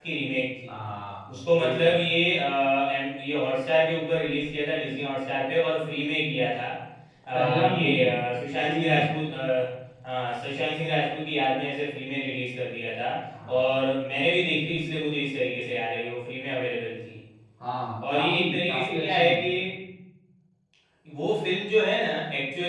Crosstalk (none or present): present